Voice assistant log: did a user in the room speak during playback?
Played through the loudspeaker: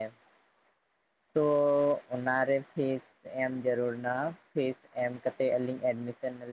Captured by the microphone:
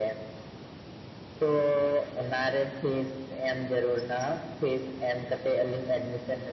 No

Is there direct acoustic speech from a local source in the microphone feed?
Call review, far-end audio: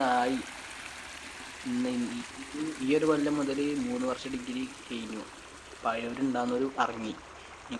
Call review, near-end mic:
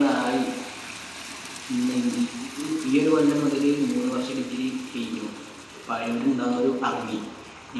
No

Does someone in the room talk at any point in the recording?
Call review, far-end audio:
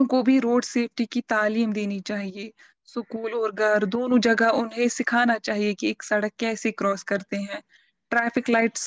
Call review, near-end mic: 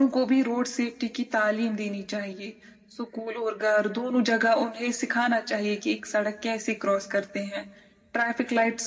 No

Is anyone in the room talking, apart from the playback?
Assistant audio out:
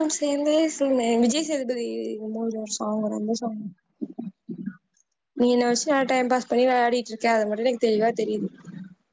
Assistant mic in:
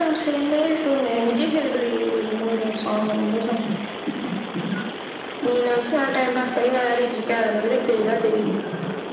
No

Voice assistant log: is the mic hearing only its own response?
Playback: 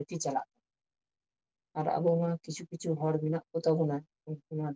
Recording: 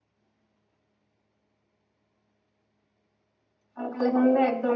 No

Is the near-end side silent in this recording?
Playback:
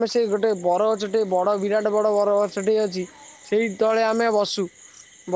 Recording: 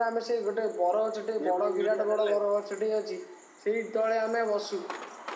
No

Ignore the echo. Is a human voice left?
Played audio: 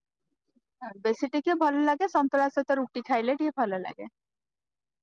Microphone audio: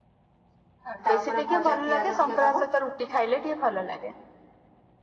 Yes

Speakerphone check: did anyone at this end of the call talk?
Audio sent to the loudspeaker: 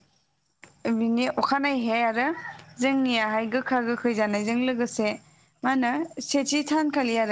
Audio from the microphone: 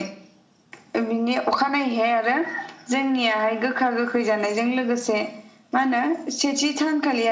No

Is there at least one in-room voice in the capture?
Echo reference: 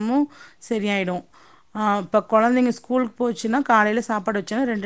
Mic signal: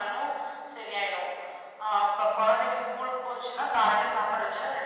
No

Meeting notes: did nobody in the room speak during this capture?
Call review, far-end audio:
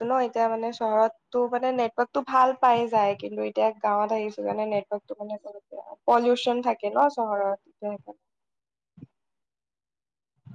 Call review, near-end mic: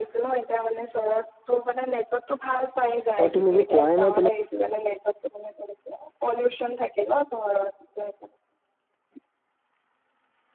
No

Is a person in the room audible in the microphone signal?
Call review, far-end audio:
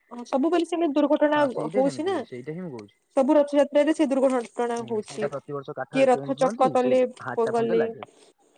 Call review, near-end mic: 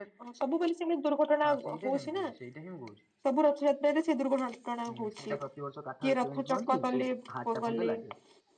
No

